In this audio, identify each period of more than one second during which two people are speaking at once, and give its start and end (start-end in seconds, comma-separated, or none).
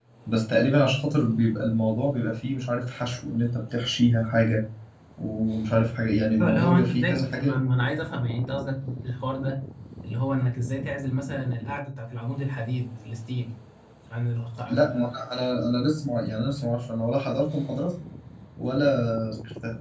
6.4-7.6